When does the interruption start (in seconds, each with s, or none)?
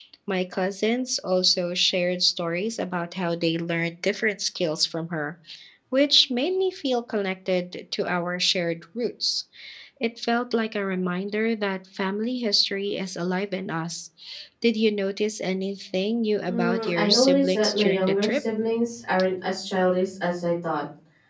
16.5 s